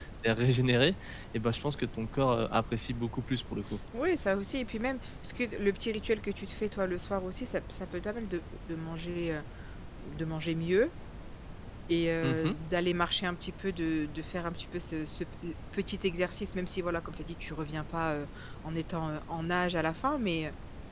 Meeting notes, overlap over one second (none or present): none